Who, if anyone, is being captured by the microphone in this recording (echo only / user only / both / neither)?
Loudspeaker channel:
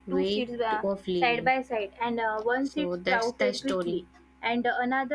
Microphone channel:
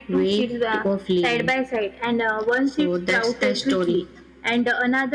echo only